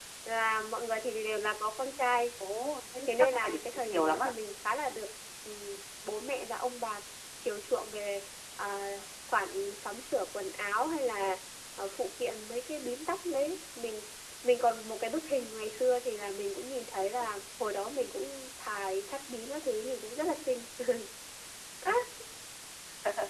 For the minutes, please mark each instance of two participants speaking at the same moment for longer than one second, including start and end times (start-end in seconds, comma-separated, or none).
3.0-4.3